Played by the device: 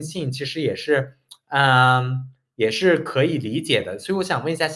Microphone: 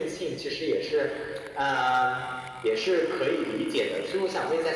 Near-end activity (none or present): none